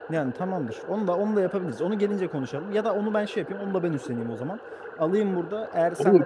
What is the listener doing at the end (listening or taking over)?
taking over